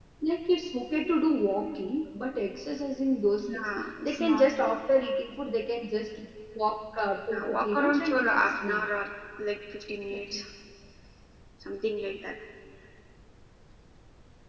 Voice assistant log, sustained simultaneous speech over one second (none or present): present